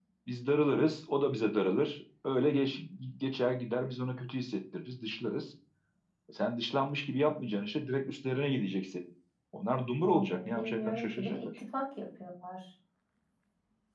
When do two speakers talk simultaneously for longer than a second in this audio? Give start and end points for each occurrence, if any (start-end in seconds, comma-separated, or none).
10.0-11.6